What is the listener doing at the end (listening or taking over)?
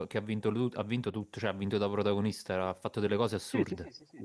taking over